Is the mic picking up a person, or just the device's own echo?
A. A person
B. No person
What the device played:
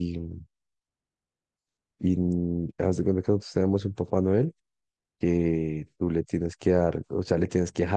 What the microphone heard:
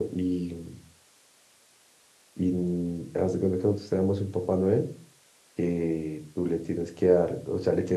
B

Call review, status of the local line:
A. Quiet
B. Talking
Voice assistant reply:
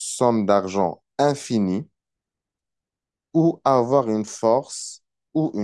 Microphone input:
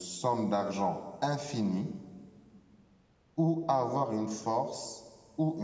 A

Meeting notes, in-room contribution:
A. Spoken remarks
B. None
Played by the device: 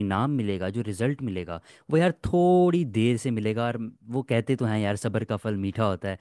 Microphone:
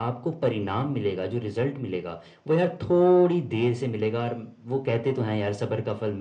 B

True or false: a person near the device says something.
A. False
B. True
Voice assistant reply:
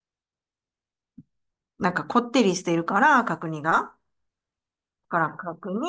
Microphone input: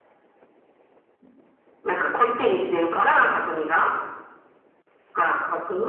A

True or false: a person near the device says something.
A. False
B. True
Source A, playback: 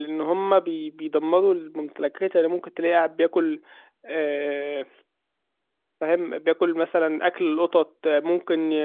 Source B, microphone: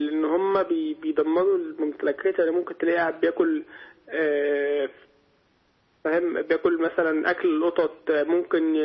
A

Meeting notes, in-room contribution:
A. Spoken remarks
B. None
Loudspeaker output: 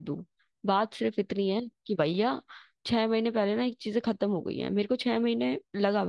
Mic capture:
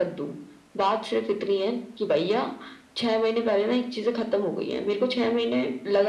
B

